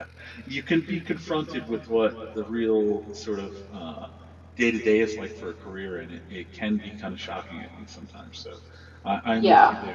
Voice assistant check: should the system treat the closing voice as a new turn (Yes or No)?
No